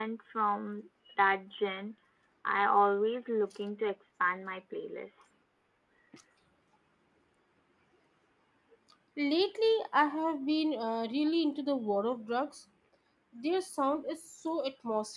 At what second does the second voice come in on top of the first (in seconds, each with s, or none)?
none